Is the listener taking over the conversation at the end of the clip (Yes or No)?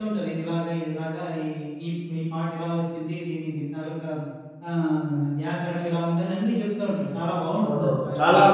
Yes